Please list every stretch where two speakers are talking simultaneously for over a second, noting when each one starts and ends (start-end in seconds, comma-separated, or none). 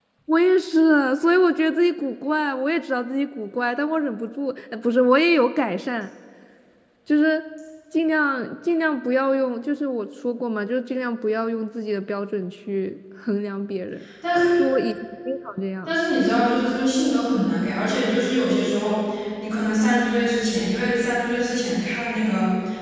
none